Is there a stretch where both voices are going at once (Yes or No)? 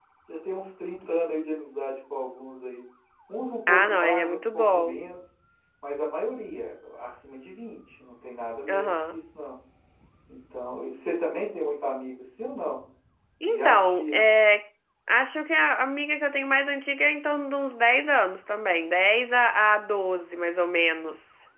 Yes